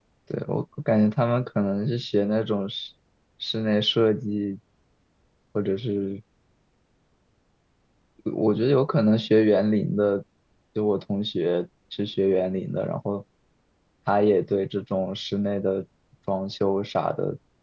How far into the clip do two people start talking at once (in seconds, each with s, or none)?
none